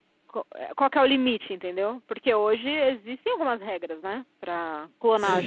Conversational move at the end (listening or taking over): taking over